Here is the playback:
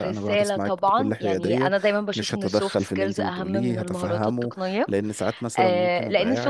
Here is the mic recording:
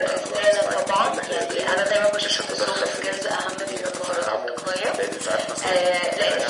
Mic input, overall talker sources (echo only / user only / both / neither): echo only